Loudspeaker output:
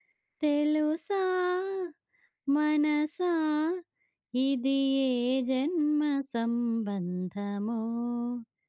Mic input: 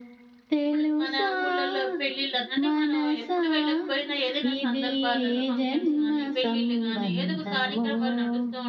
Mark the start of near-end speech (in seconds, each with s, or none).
0.6 s